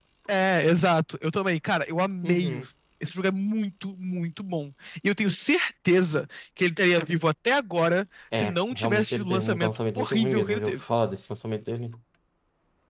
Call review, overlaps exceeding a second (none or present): present